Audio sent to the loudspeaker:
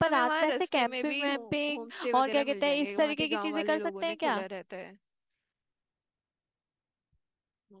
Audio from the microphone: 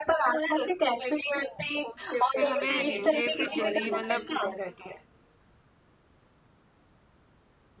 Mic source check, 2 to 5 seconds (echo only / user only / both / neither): both